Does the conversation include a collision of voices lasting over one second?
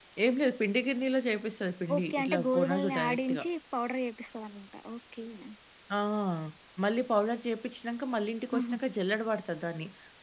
Yes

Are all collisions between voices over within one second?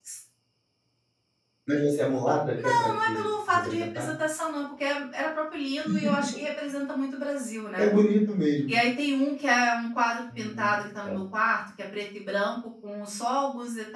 No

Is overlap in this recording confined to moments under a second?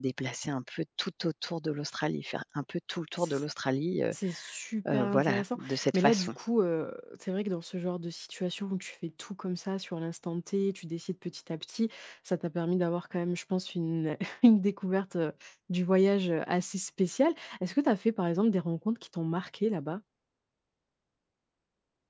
No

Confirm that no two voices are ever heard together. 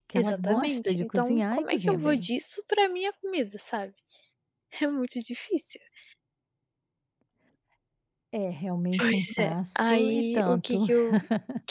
No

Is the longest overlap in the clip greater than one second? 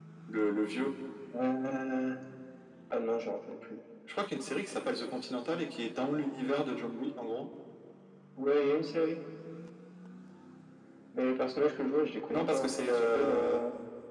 Yes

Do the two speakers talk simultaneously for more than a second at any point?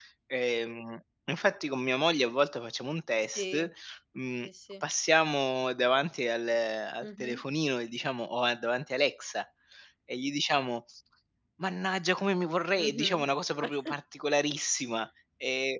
No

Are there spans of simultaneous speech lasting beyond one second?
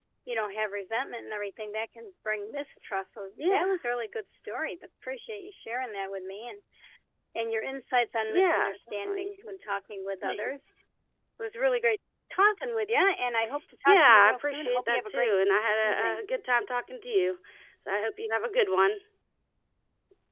Yes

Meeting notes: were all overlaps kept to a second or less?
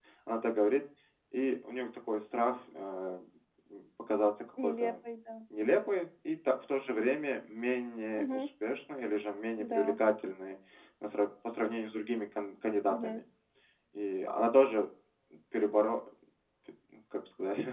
Yes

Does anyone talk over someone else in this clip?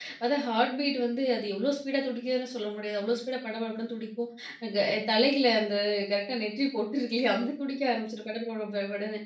No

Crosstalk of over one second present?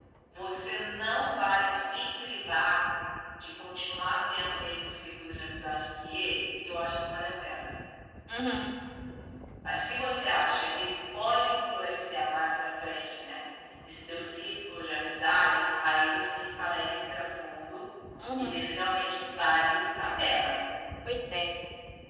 No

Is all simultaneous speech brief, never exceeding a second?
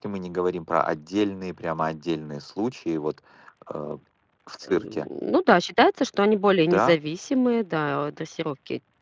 Yes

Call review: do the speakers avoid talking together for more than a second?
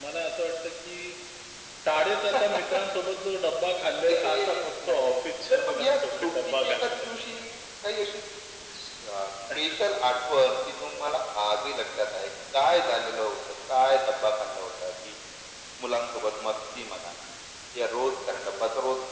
No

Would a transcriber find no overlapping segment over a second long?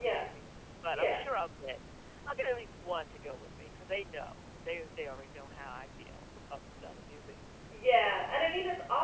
Yes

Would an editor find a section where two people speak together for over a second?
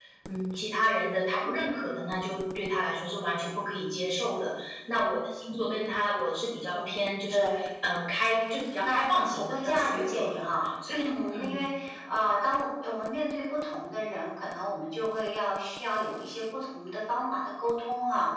Yes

